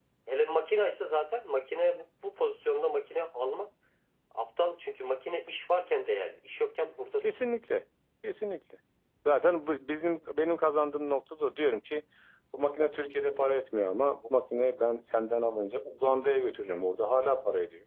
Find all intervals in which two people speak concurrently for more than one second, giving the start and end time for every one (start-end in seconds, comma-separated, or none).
none